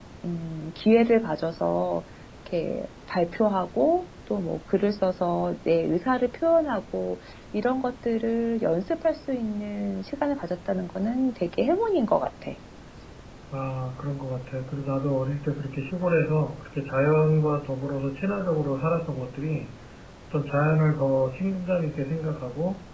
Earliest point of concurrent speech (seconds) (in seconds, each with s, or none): none